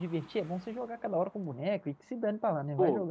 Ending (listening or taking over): taking over